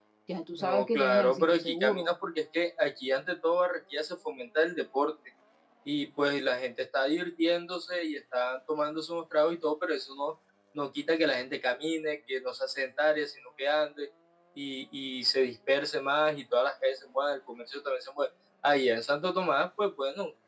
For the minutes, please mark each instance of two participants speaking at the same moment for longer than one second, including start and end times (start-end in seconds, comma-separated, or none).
0.6-2.1